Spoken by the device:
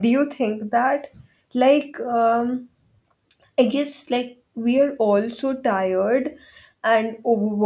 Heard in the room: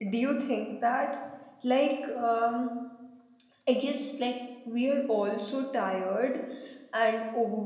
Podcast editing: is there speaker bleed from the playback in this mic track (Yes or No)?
Yes